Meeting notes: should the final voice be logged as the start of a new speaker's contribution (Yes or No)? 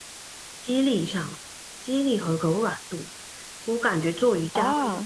No